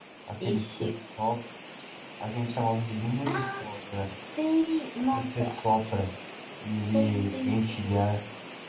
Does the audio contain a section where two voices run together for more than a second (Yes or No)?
Yes